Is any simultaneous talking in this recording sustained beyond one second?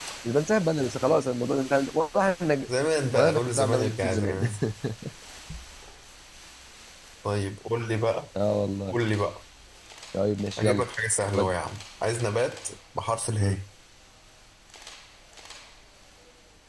Yes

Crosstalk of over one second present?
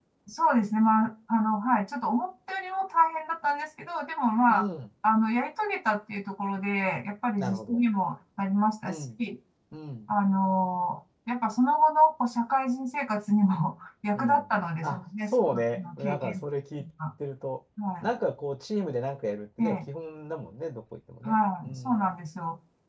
Yes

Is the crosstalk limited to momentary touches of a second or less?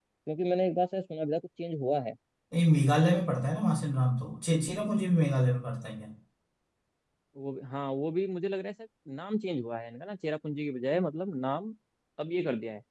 Yes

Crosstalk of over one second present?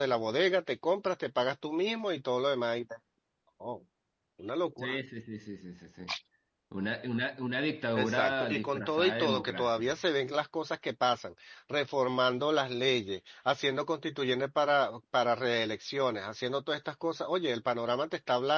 Yes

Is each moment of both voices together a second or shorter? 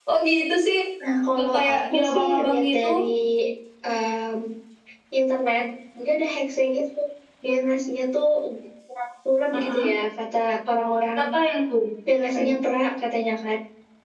No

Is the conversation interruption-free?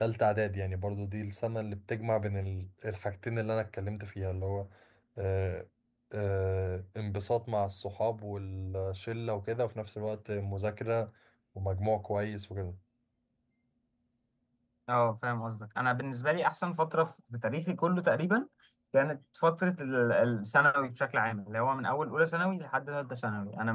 Yes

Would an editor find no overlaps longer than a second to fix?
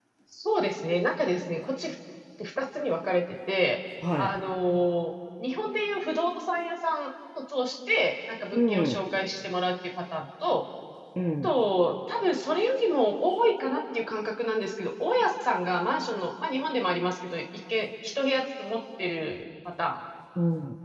Yes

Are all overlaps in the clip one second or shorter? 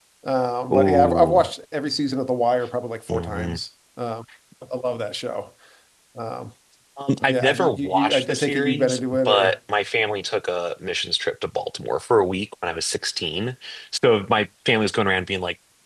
No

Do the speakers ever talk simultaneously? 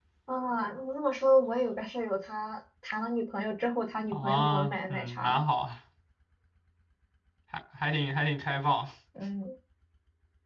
Yes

